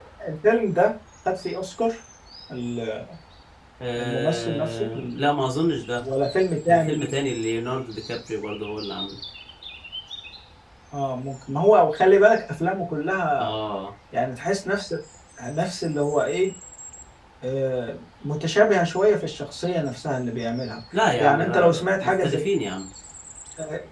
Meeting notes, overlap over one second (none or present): present